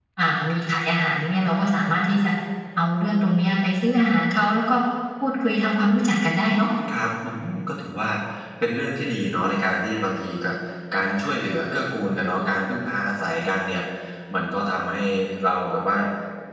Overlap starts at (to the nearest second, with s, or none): none